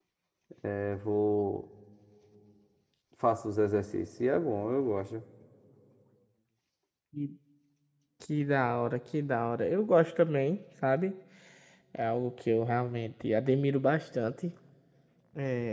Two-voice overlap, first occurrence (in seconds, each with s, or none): none